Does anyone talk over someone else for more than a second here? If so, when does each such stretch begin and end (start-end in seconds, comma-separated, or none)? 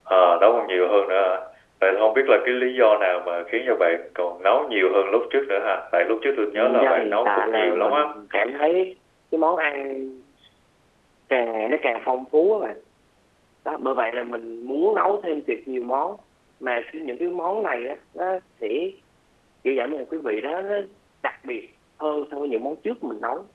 6.8-8.2